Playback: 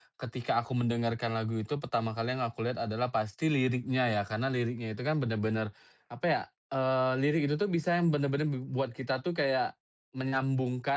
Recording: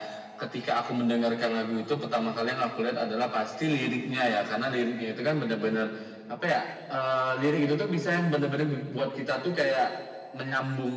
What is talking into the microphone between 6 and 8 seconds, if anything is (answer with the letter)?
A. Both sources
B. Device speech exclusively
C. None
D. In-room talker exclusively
B